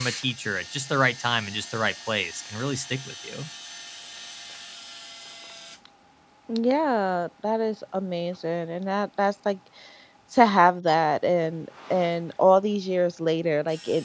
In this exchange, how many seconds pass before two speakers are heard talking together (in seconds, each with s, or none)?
none